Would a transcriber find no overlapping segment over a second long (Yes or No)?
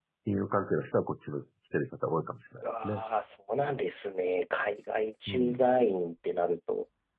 Yes